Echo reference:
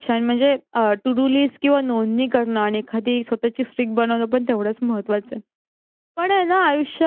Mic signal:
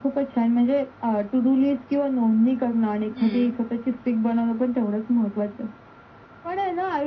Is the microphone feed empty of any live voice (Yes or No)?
No